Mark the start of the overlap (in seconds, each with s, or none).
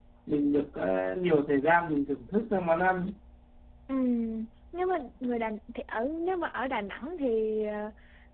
none